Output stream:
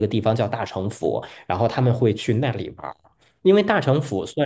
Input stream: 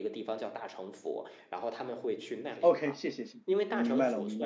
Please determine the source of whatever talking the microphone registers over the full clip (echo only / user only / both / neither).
both